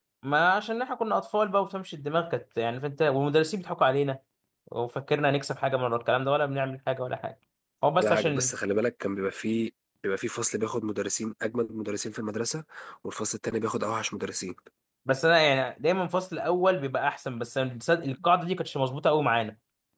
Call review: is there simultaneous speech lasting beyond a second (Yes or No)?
No